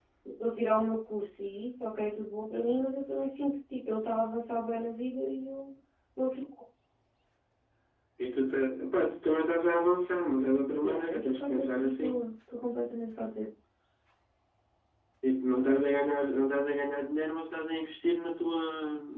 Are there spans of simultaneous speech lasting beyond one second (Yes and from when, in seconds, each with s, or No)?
Yes, from 10.8 s